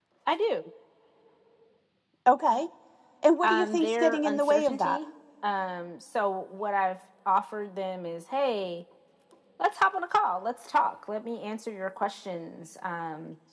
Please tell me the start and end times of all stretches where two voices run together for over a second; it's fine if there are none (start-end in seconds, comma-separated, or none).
3.4-5.0